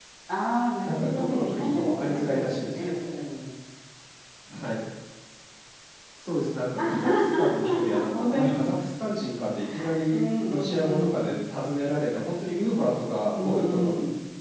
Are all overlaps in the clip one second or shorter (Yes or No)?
No